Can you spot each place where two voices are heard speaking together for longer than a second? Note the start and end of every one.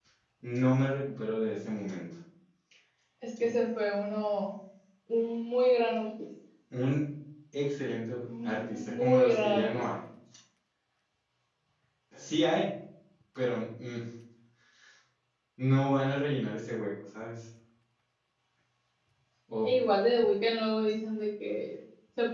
8.4-9.7

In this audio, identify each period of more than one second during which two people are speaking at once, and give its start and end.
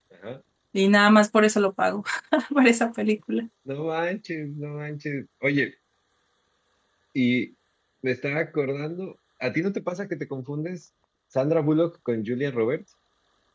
none

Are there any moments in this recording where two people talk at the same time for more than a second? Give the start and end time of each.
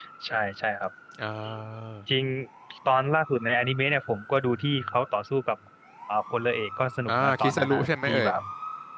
7.1-8.3

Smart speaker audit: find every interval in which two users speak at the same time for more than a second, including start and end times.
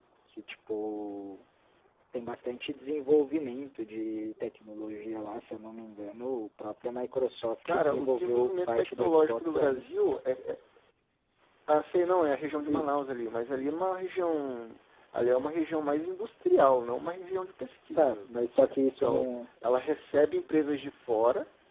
7.7-9.8

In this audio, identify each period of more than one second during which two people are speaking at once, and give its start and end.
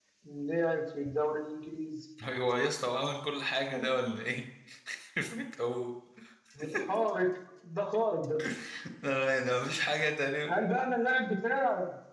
none

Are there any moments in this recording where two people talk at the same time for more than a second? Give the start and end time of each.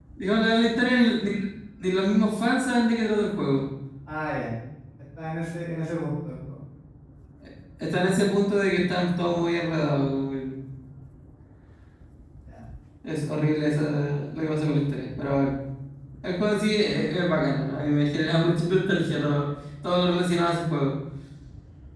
none

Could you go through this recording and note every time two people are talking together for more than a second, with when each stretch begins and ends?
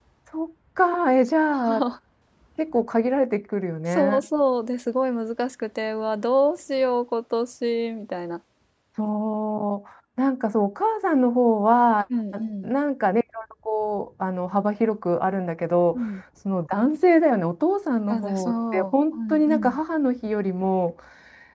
18.1-19.8

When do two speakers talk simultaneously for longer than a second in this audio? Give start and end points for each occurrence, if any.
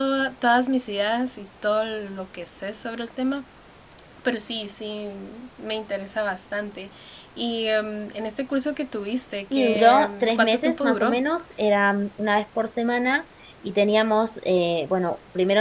9.5-11.2

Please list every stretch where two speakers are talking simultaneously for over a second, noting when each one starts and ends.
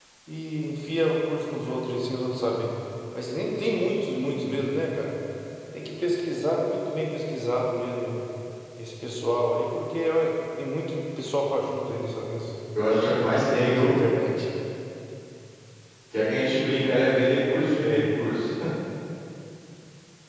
none

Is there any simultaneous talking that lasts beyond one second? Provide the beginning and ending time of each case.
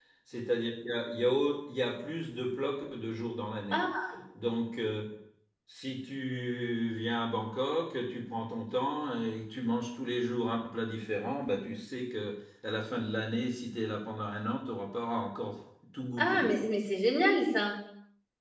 none

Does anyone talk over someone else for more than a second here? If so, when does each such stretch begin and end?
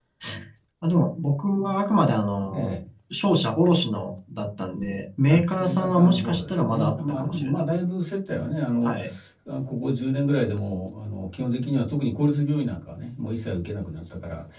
5.3-7.9

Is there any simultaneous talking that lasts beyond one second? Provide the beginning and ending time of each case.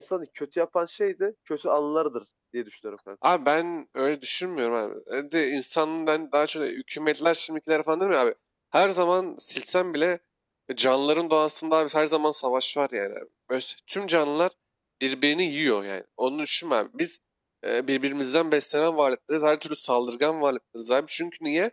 none

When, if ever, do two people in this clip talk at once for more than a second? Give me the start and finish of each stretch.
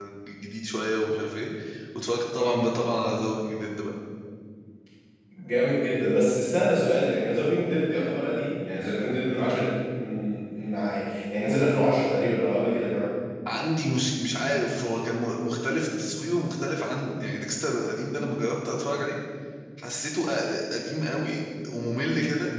none

